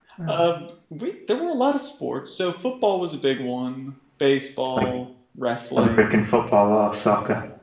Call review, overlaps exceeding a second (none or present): none